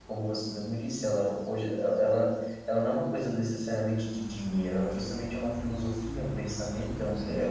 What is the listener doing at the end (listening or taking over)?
listening